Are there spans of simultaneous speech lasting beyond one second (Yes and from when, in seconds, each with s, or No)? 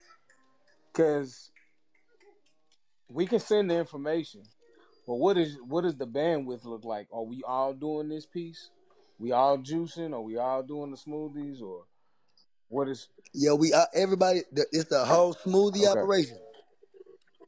No